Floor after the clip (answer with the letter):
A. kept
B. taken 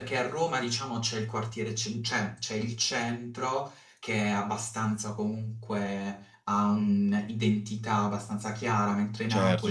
B